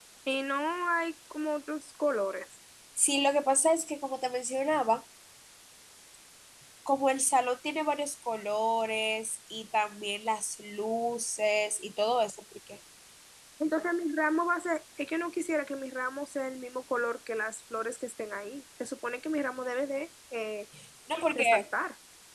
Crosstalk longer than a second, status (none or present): none